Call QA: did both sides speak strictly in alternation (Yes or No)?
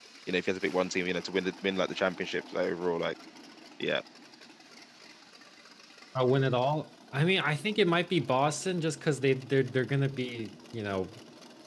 Yes